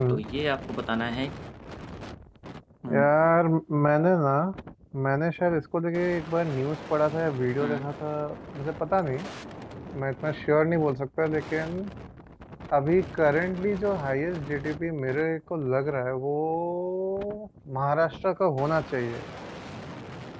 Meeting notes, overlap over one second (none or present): none